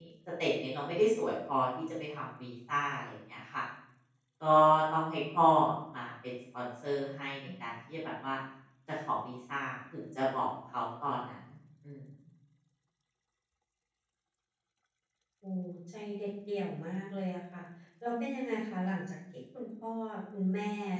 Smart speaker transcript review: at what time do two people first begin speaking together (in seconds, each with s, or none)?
none